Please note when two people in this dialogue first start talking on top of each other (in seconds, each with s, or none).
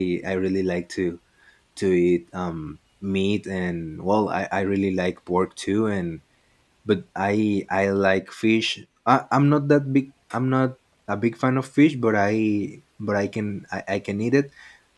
none